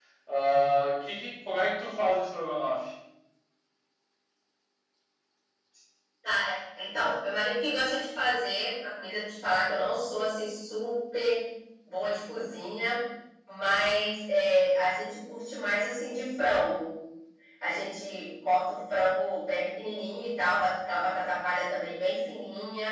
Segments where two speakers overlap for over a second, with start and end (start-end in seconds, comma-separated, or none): none